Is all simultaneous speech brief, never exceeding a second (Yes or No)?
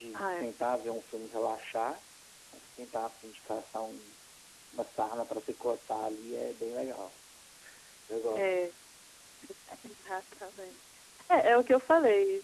Yes